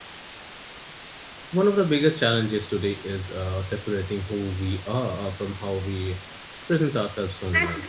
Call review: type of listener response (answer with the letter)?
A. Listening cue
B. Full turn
B